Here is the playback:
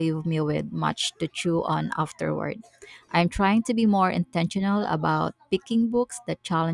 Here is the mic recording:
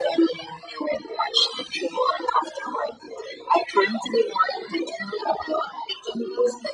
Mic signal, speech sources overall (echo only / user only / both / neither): echo only